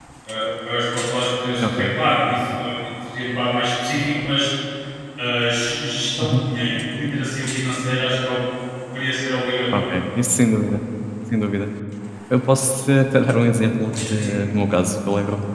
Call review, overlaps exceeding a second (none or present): none